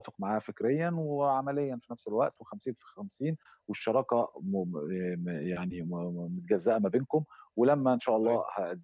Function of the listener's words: listening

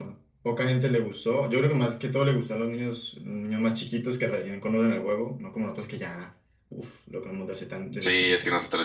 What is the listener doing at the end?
taking over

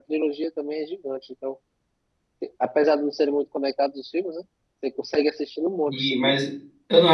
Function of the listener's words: taking over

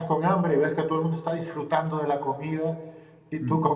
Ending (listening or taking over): listening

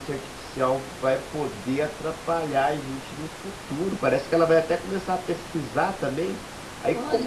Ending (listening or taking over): listening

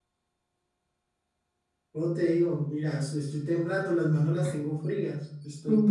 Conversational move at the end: taking over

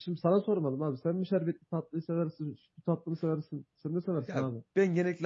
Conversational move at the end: taking over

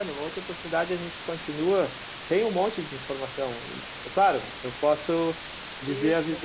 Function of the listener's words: listening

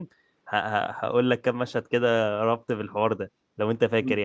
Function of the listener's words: taking over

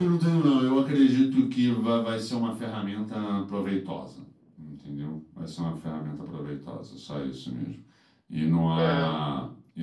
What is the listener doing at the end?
listening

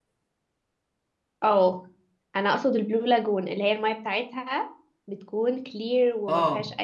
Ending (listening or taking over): taking over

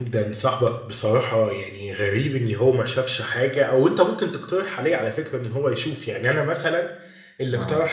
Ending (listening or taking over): listening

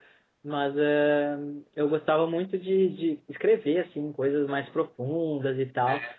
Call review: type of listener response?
listening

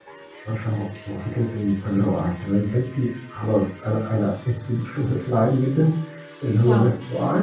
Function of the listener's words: listening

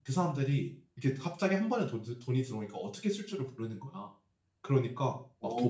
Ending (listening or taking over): listening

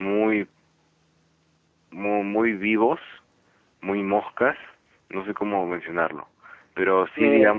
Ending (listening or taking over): listening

